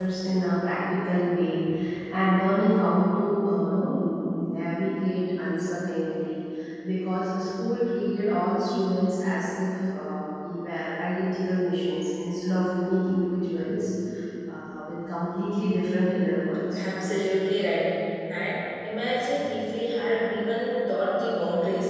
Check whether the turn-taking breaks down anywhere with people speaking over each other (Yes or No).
No